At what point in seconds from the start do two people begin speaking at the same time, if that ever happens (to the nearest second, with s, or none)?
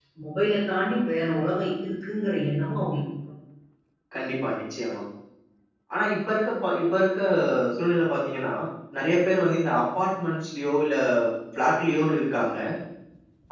none